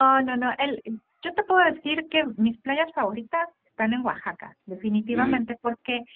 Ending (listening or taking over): listening